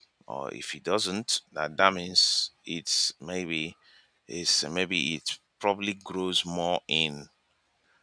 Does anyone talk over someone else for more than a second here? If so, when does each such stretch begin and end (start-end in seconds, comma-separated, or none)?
none